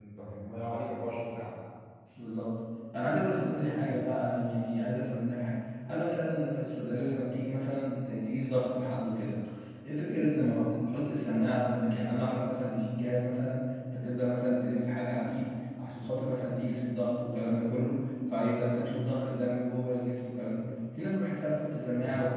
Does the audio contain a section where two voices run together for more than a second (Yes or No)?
No